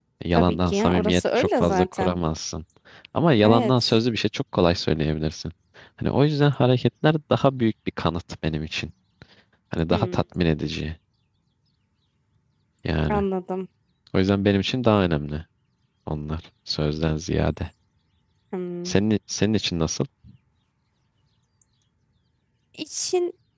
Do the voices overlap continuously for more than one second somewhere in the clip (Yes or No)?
Yes